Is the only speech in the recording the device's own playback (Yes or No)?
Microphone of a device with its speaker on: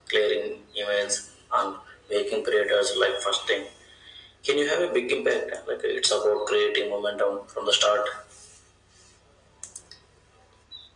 Yes